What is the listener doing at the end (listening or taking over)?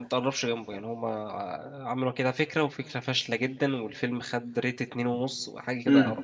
taking over